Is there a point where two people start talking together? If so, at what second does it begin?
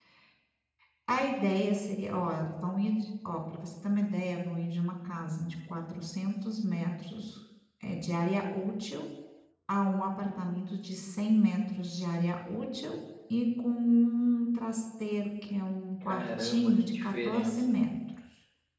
16.0 s

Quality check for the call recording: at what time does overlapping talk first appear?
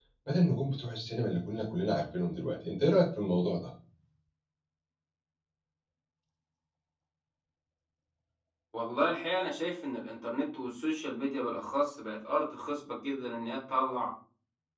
none

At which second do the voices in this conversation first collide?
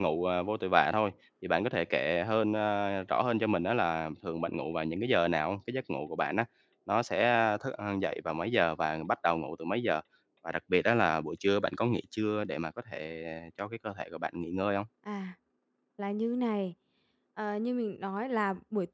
none

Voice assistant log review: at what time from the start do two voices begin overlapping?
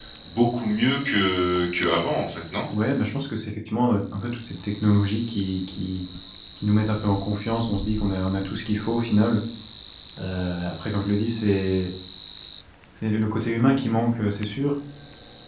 none

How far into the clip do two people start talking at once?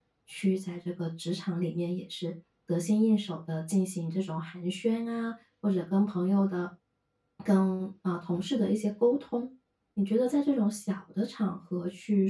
none

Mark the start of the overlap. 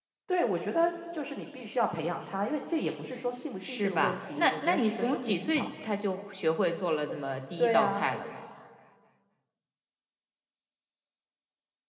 3.6 s

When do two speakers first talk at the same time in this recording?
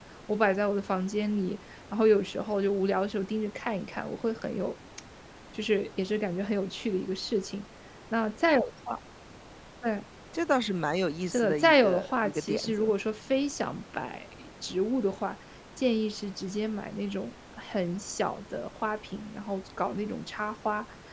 11.3 s

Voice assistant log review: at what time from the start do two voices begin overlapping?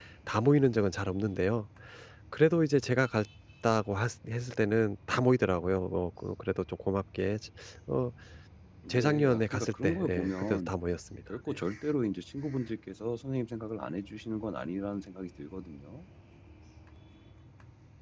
8.9 s

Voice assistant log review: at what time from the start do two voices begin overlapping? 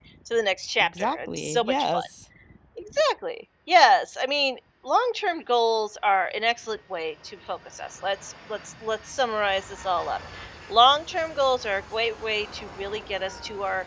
0.8 s

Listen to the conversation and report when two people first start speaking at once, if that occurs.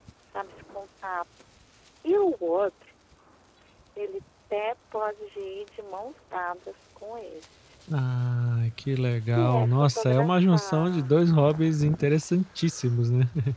9.3 s

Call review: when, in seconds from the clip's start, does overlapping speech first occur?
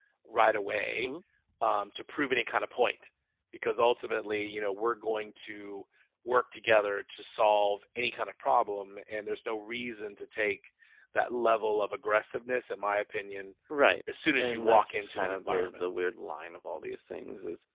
14.4 s

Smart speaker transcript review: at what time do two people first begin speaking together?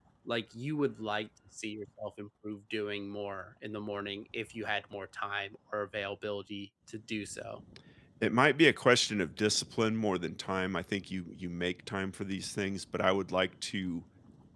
none

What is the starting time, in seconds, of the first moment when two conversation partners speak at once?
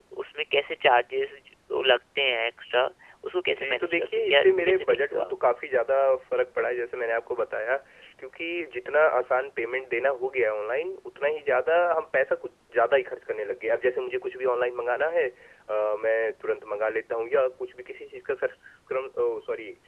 3.5 s

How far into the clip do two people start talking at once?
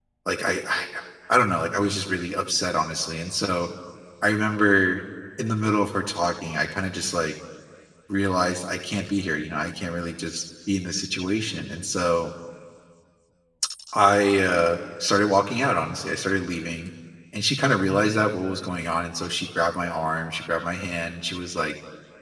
none

